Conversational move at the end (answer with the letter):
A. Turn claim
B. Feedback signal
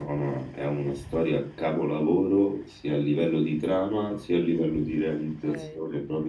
A